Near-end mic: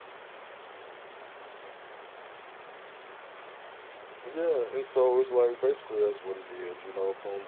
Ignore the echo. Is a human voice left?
Yes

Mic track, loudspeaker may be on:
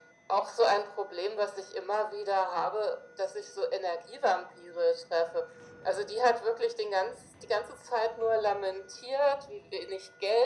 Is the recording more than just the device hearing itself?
No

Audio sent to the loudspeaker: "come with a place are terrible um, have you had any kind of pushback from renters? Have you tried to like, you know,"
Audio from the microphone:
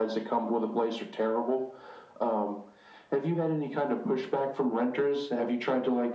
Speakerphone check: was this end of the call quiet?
Yes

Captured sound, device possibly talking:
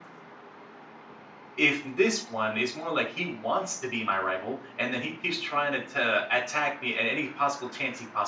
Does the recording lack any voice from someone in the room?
No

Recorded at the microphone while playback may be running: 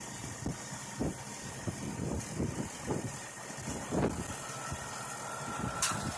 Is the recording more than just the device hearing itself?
No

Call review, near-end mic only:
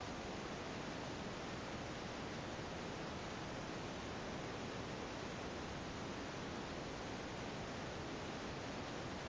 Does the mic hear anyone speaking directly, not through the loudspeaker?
No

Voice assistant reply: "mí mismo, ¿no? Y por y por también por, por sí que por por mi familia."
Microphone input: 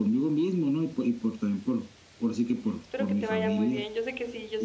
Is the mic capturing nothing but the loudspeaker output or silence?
No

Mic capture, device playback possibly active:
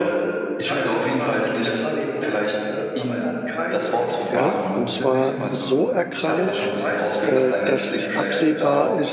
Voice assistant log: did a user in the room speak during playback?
Yes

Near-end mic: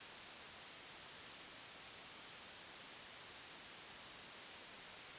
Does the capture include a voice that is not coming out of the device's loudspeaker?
No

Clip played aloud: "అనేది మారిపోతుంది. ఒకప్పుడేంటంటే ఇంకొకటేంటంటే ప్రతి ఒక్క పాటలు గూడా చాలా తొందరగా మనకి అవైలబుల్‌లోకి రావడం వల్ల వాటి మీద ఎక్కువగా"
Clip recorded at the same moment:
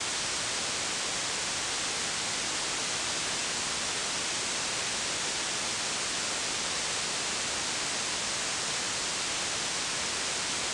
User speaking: No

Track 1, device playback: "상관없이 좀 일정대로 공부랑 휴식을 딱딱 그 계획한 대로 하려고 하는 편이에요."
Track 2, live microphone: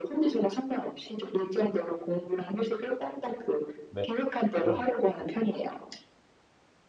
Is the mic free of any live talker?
No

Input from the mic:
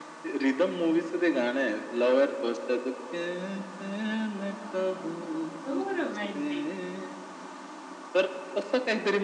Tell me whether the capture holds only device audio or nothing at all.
No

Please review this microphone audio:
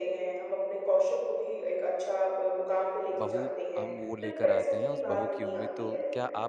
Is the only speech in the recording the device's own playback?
No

